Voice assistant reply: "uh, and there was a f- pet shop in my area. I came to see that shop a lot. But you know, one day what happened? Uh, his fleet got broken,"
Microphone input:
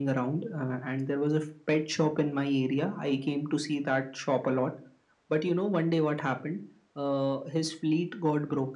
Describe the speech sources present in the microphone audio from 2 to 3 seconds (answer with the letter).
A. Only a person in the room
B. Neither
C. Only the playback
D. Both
C